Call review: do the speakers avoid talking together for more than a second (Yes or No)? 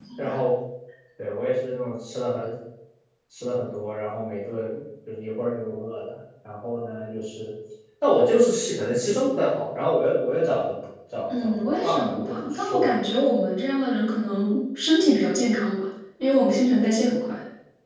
No